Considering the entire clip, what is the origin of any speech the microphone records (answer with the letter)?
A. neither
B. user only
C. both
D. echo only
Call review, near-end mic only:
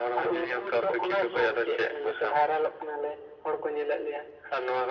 D